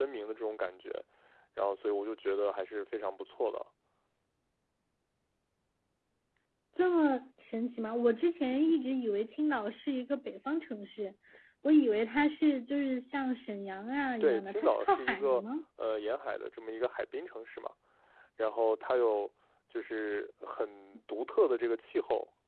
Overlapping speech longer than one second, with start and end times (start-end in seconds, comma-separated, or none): 14.2-15.4